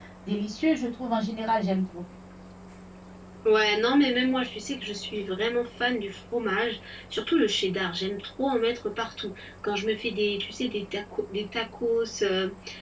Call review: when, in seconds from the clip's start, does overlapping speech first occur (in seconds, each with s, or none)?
none